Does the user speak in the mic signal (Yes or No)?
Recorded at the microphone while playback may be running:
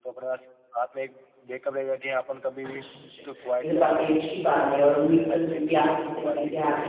Yes